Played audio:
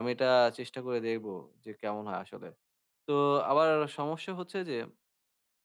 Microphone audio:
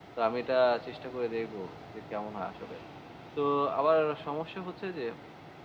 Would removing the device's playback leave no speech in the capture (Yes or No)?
Yes